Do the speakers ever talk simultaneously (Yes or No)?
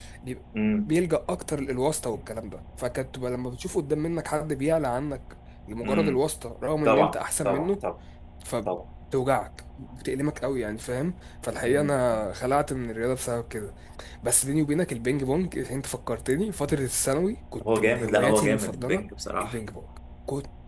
Yes